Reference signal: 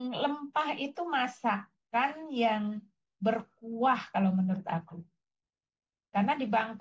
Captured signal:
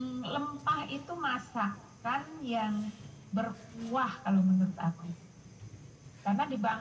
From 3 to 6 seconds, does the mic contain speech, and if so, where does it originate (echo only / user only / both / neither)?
echo only